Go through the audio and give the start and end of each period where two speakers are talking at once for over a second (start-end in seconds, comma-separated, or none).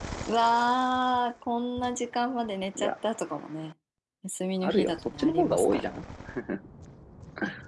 4.6-5.9